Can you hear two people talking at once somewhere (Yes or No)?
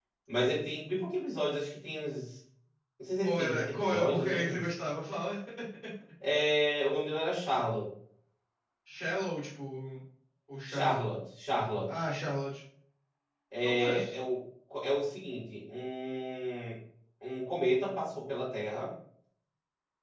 Yes